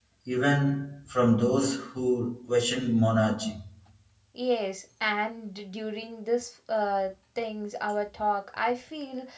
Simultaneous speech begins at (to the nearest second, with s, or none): none